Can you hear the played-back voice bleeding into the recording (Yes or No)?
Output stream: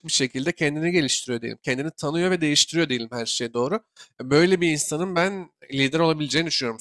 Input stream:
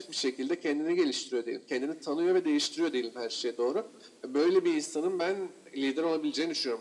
Yes